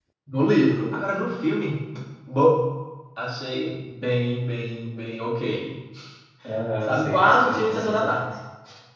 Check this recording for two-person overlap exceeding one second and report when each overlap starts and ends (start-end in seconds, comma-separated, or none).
6.9-8.2